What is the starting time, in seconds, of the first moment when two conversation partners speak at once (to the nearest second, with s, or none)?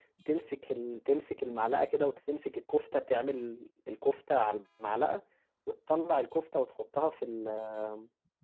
none